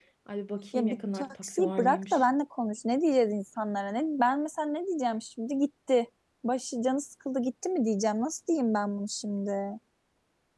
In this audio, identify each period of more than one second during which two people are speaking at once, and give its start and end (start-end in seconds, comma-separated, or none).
0.7-2.2